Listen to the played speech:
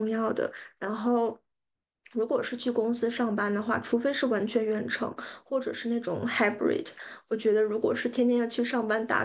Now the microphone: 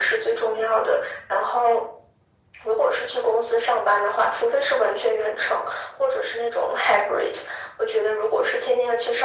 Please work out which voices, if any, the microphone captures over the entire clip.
echo only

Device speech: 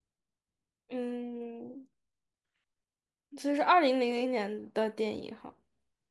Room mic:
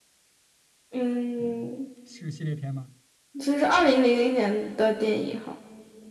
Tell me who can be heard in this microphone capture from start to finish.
both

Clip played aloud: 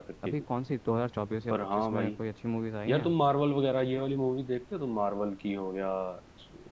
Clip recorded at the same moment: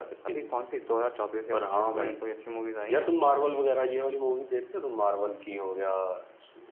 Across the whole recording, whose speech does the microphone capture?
echo only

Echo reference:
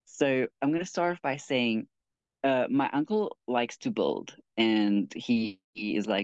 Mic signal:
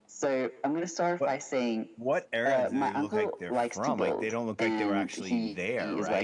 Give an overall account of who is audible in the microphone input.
both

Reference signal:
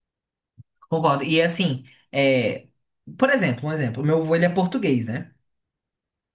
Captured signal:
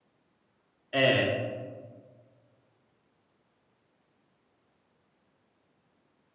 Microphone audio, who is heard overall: user only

